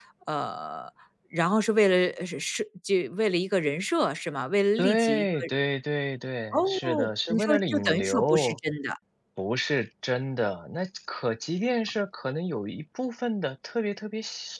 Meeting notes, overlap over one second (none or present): present